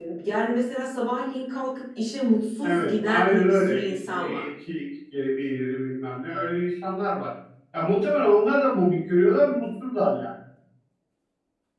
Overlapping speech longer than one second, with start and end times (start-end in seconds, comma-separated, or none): 2.6-4.4